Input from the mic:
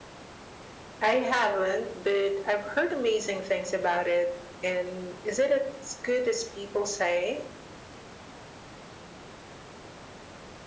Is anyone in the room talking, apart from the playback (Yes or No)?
No